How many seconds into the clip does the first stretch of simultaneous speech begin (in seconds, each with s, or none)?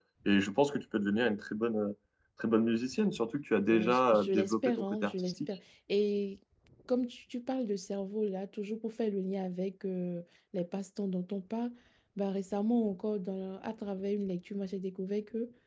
3.7 s